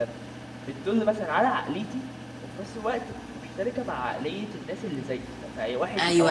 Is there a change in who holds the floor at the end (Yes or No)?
Yes